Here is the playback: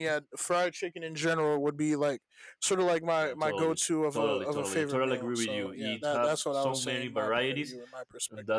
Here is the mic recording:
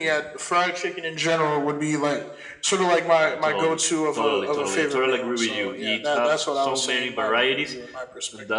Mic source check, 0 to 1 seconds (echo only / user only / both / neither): echo only